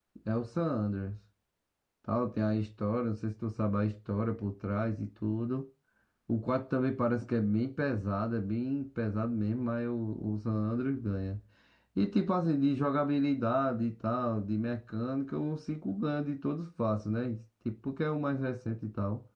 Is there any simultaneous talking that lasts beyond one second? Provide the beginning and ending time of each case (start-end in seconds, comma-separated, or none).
none